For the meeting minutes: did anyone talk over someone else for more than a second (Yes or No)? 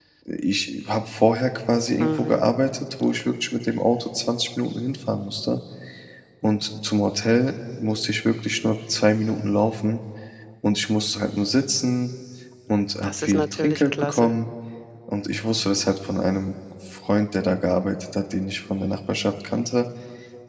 Yes